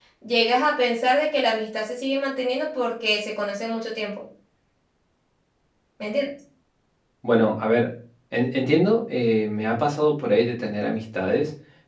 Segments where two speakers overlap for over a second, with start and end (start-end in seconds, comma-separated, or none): none